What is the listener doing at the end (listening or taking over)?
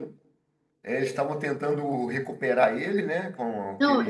taking over